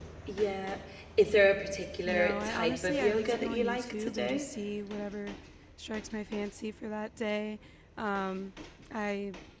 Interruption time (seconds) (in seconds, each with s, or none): 2.0 s